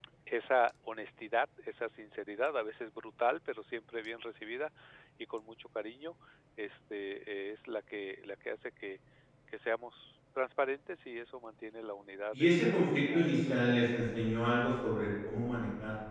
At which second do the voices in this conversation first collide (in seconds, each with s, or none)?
12.3 s